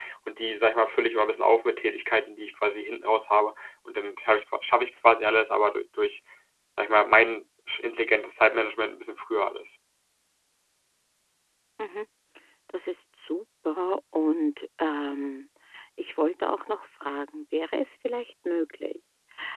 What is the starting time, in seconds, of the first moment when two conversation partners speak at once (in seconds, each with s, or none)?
none